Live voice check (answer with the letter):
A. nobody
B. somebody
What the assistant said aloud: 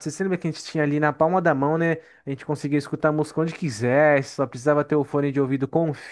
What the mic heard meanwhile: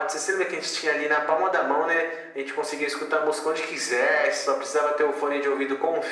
A